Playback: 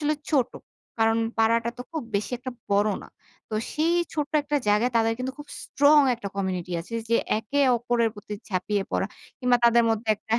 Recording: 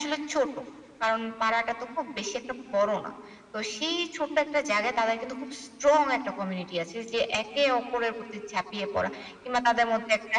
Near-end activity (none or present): none